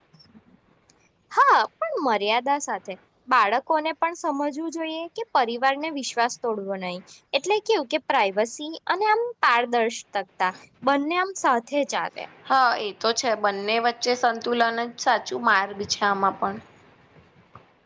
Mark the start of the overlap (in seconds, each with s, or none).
none